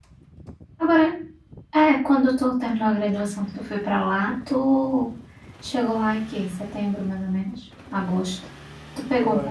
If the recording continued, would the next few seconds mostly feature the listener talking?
Yes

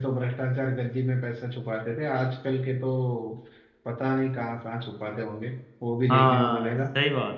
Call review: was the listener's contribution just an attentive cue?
No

